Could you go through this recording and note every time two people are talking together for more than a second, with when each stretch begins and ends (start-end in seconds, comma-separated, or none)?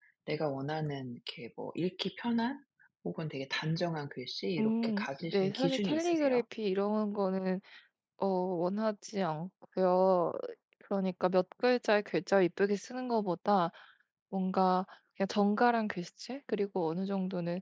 4.6-6.4